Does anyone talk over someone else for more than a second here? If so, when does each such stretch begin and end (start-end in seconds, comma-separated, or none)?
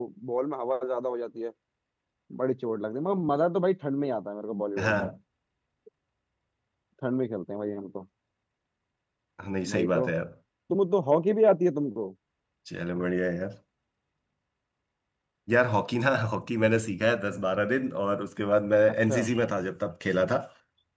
none